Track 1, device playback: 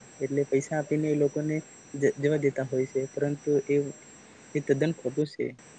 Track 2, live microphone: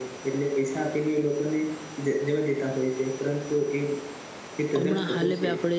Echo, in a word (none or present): present